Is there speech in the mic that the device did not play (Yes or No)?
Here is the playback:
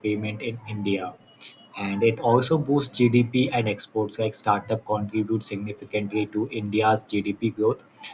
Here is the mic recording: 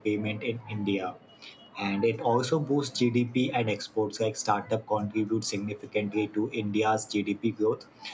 No